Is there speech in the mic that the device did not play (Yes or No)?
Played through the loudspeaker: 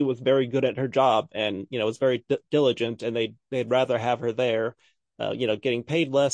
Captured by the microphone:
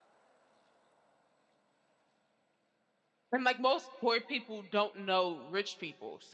Yes